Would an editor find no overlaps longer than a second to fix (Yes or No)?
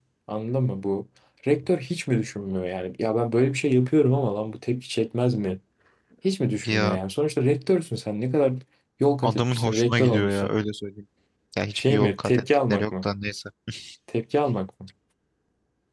No